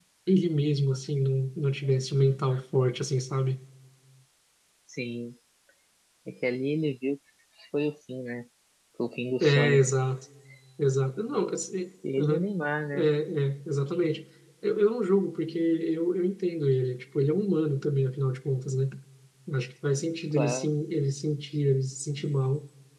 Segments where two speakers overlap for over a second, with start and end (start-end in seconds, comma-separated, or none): none